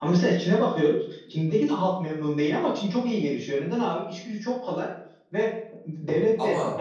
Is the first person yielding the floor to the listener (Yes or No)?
No